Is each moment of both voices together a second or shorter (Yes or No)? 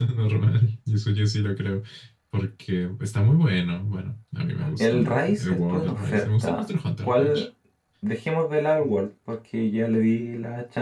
No